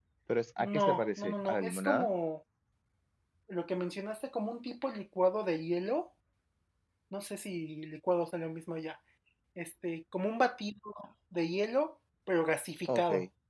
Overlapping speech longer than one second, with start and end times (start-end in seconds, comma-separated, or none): 0.7-2.1